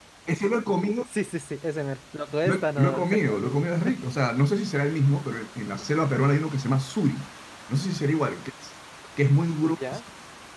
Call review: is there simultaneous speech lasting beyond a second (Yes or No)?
Yes